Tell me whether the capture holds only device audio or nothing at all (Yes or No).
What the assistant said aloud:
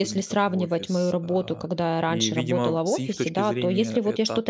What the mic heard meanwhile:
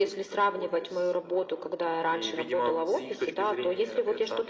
Yes